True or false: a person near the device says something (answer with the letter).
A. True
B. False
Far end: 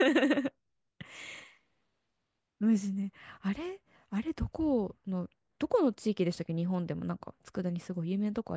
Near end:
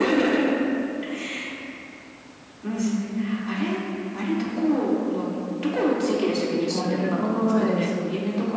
A